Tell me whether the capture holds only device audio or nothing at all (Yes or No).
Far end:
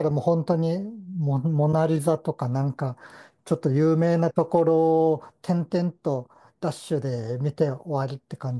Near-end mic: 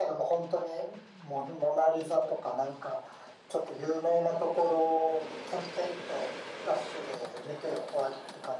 Yes